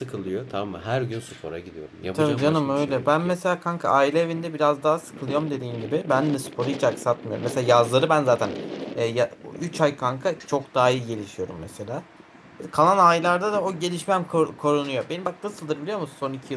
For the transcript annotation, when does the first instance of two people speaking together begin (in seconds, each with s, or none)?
2.1 s